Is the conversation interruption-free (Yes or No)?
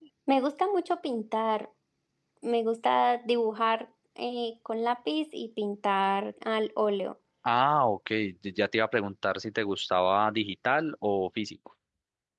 Yes